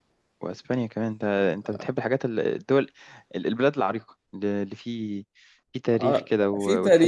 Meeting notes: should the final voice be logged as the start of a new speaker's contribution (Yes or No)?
Yes